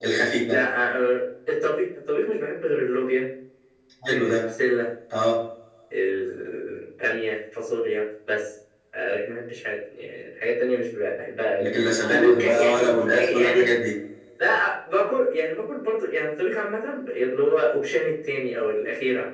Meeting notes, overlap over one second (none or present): present